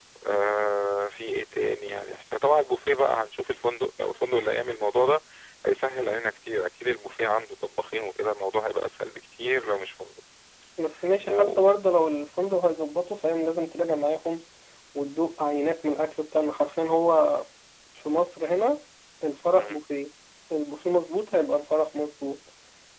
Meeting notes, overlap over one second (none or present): none